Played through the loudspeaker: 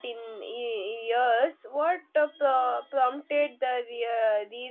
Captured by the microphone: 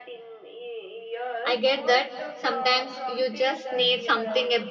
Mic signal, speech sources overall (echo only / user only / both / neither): both